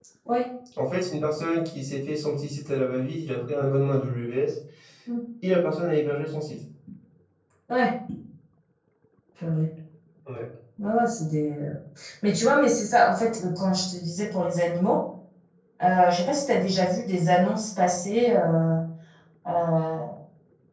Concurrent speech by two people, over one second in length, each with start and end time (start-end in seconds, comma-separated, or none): none